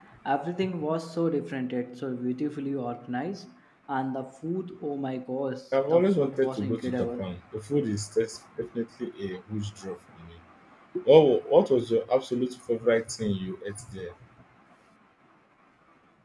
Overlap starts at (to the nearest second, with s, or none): 6 s